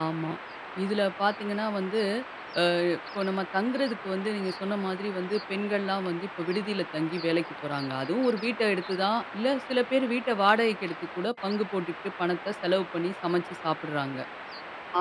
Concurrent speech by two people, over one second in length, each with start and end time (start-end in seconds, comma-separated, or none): none